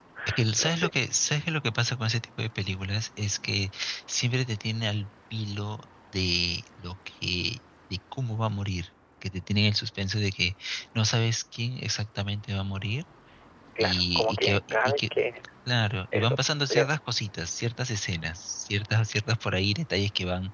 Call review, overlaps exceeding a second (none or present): present